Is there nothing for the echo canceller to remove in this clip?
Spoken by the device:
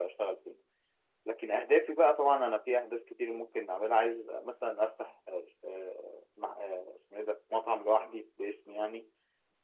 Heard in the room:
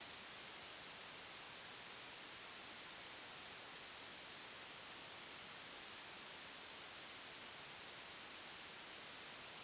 Yes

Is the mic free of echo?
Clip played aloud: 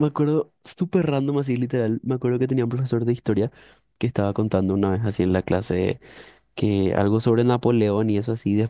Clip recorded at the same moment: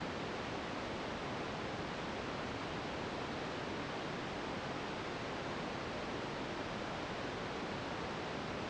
Yes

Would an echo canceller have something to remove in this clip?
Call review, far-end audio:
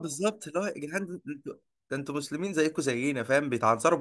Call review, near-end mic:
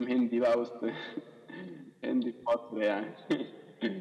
No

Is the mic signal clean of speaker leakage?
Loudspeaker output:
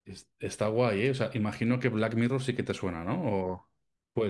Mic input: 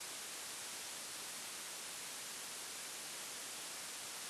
Yes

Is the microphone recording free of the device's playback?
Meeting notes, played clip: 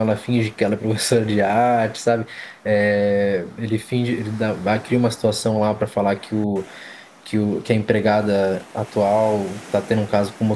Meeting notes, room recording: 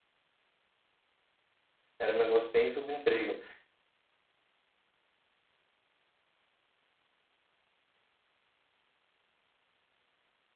Yes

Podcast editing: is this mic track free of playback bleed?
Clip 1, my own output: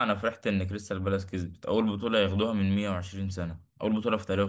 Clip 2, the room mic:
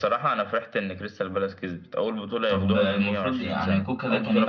No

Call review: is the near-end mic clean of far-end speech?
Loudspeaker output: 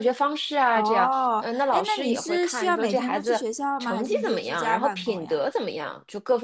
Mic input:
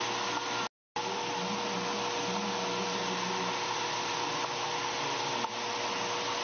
Yes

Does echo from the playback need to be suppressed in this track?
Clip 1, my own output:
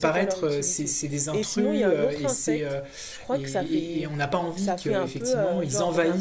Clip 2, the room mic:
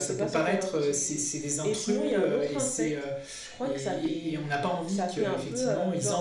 Yes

